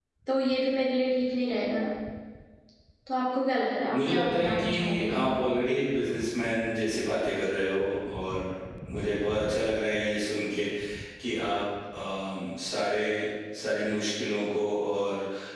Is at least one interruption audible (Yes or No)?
Yes